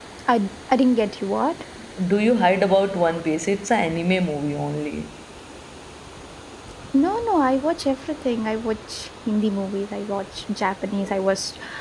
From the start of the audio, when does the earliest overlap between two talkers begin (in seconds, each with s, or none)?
none